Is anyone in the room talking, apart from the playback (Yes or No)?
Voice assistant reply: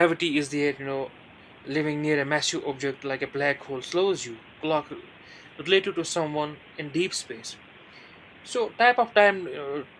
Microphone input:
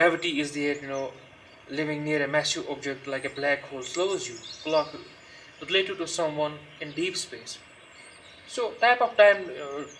No